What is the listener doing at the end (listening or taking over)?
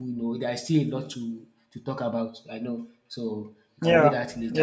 taking over